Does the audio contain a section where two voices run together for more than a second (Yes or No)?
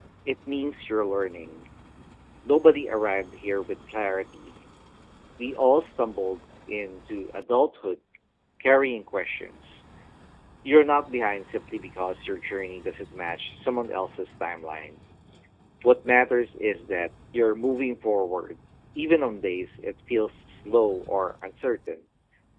No